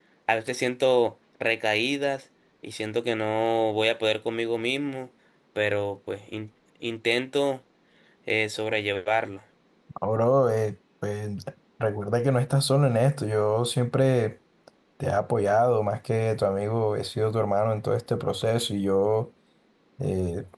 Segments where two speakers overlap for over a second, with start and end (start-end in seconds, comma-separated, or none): none